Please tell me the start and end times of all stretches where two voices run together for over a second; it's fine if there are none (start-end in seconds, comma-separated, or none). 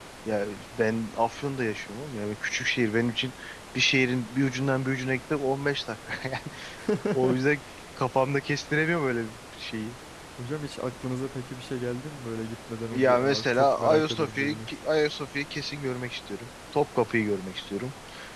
12.9-14.7